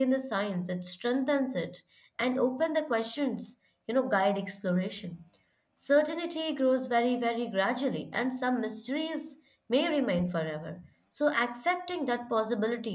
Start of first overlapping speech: none

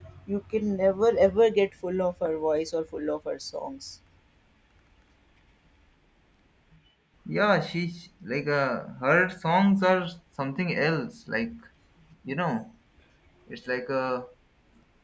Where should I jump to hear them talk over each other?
none

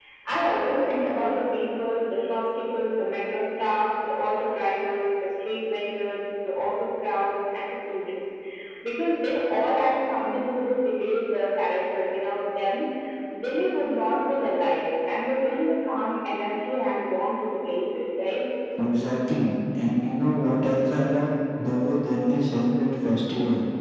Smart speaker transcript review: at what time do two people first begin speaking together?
none

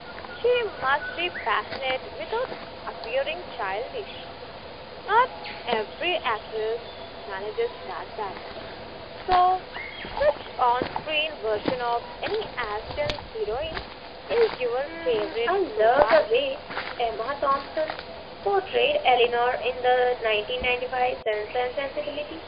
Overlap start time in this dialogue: 15 s

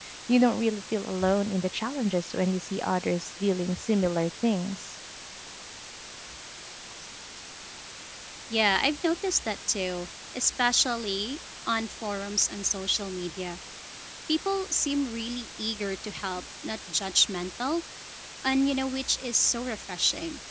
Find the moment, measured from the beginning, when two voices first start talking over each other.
none

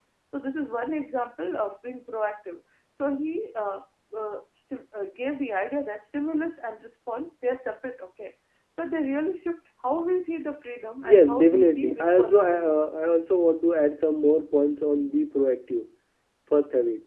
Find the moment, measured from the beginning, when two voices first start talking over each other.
11 s

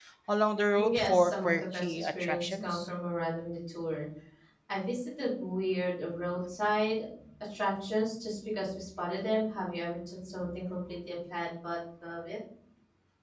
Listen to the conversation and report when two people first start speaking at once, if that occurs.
1 s

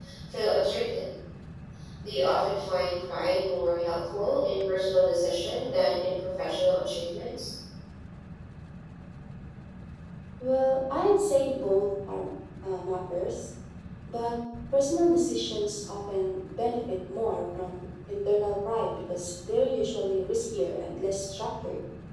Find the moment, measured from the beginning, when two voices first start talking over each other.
none

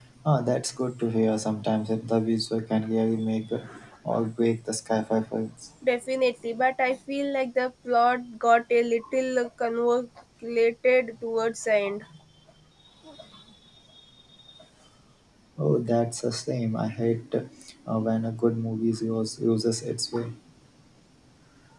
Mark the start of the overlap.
none

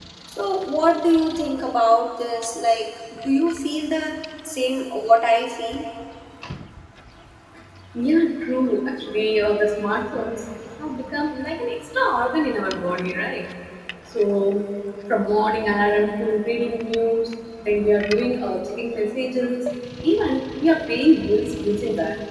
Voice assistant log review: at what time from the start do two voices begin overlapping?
none

